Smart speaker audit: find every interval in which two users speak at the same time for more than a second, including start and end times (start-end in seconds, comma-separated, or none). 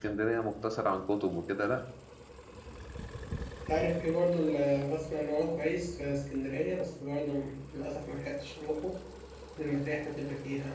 none